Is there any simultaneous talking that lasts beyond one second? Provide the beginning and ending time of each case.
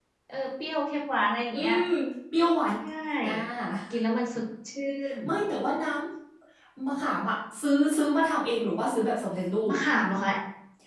none

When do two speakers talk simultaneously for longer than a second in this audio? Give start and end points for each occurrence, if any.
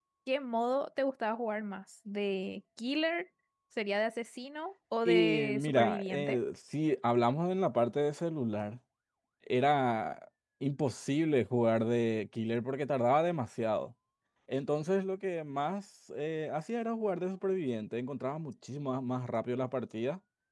5.0-6.4

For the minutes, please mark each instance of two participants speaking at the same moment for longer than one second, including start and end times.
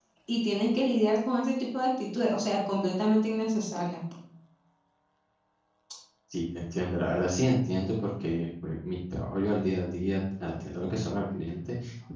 none

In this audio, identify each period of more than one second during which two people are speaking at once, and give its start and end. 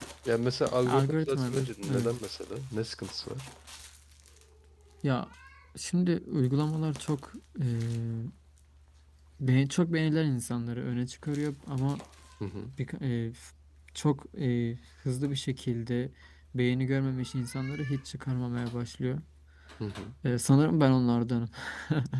0.8-2.1

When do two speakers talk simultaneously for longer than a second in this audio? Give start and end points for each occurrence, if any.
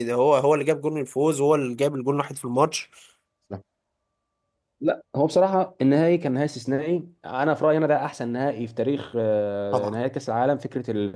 none

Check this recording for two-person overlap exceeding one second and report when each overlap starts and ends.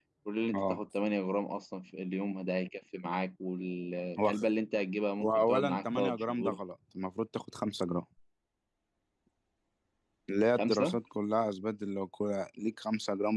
5.2-6.6

